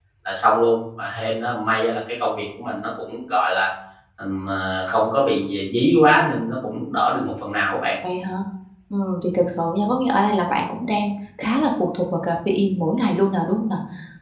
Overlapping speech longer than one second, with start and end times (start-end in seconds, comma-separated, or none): none